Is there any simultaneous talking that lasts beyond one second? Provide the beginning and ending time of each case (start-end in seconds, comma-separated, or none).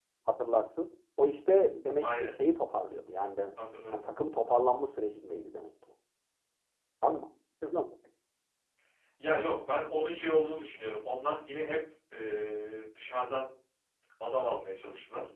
none